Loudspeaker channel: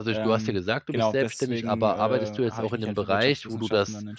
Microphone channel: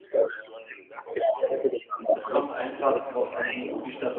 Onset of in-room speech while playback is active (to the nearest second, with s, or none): 2 s